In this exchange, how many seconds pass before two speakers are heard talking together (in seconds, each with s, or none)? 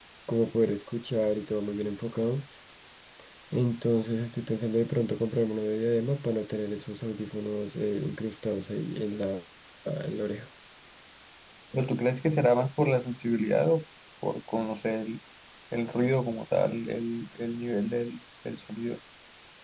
none